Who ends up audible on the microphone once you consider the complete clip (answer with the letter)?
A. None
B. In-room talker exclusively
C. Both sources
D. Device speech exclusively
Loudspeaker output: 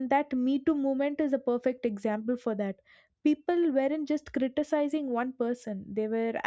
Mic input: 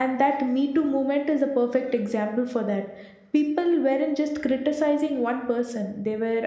D